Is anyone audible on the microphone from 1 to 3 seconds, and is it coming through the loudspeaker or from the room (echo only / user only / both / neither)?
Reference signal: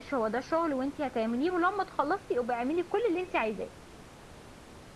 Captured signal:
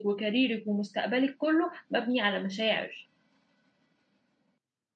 user only